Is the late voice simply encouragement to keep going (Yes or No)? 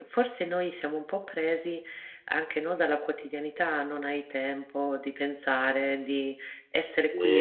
No